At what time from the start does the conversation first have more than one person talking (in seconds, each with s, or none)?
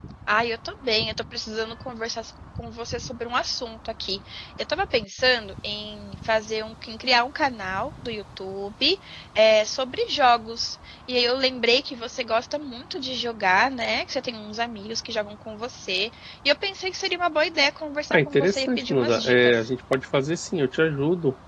18.1 s